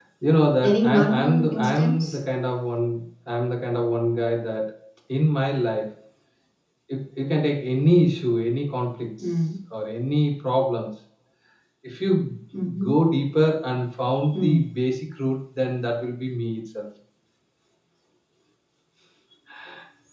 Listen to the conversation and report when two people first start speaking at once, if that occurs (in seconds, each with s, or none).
0.6 s